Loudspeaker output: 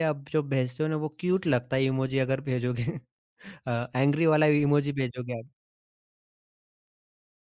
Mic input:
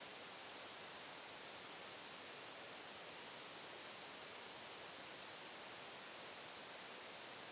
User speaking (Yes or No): No